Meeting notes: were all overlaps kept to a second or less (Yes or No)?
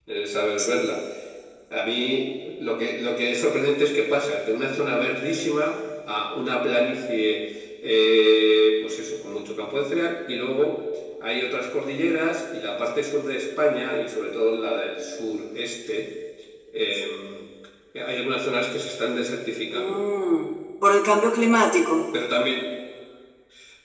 Yes